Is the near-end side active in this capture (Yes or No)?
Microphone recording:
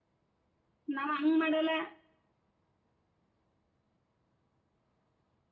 Yes